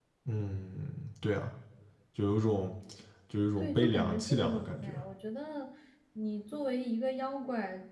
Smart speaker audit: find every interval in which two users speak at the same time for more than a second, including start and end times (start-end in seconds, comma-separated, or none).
3.6-4.9